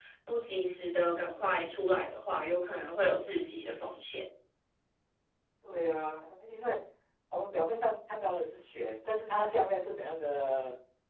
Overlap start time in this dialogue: none

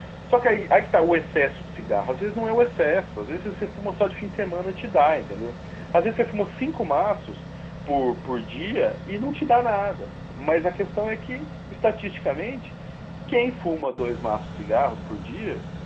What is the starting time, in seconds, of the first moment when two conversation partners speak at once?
none

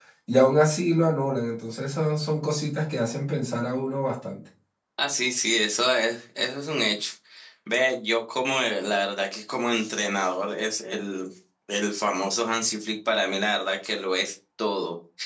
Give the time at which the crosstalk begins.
none

